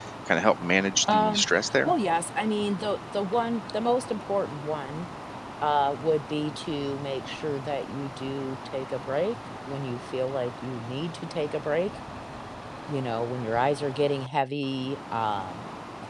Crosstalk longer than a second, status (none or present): none